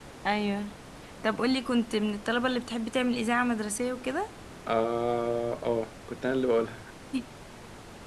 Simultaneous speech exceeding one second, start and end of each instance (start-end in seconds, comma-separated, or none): none